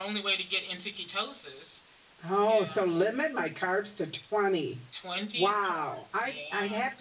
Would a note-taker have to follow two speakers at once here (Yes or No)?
Yes